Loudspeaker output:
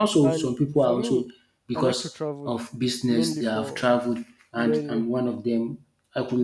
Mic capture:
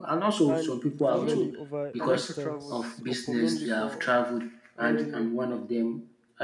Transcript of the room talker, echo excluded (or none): usually over a distance or purpose. And